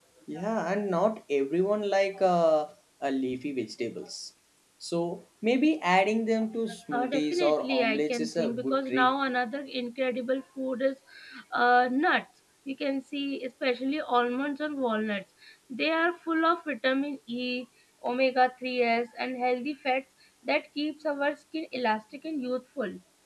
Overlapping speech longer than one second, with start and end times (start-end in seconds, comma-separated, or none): 6.9-9.1